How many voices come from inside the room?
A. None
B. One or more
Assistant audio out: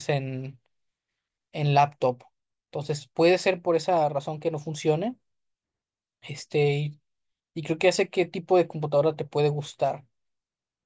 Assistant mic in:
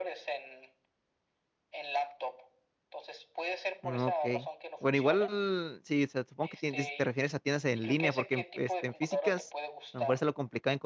B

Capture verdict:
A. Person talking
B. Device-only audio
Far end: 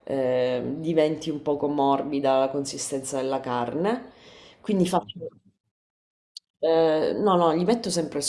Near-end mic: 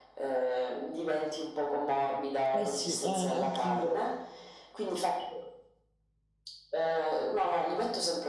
A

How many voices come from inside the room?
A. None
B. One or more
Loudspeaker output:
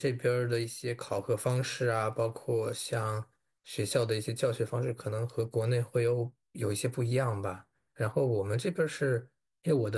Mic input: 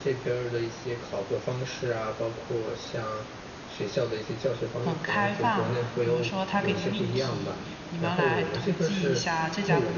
B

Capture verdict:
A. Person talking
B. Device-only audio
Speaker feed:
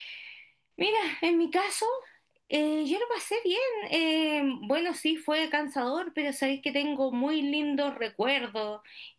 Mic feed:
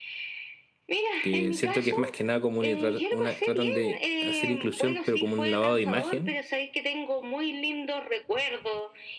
A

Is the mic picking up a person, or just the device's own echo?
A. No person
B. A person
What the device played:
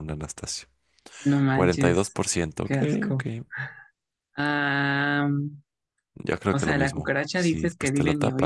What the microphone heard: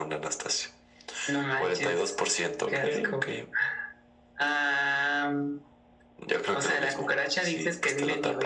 A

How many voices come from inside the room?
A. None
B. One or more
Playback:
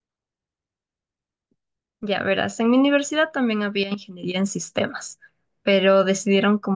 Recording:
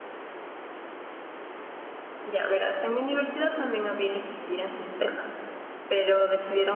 A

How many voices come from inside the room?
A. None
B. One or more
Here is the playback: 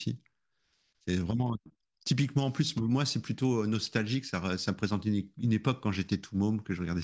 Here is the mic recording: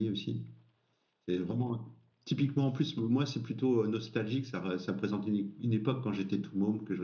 A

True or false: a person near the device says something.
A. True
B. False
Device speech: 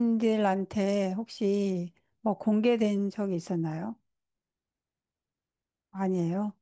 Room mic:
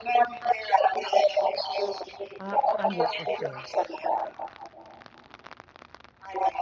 A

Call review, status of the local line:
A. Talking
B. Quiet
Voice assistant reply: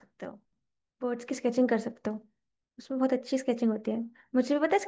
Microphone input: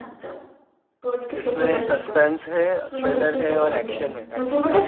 A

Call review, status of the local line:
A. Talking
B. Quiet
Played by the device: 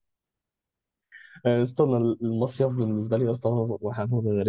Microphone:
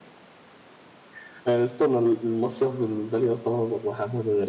B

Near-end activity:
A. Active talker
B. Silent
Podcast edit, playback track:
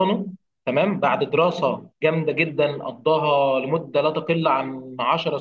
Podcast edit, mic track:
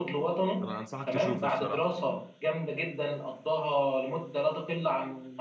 A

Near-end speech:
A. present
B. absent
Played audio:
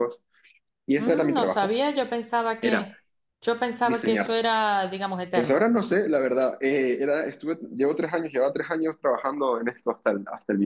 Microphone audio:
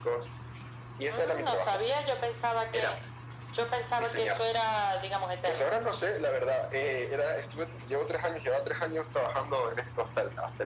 B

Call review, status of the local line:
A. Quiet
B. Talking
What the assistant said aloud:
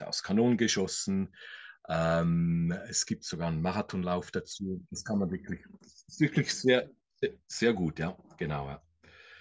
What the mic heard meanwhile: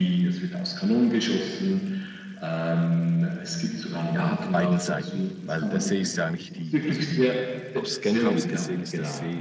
B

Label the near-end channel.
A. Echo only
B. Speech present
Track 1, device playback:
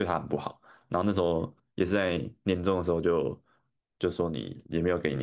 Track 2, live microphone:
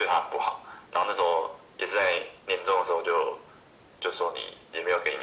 A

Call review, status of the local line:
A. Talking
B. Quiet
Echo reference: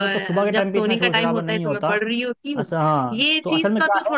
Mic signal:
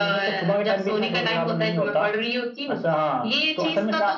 B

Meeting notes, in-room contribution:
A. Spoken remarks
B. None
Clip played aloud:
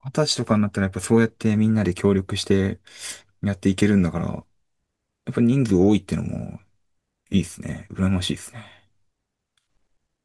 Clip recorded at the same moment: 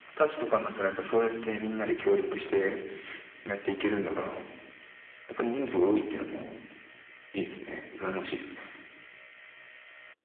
B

